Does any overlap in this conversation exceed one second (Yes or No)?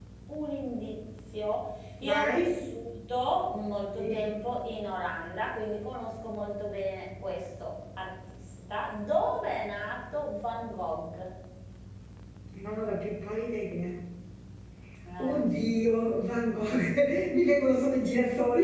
No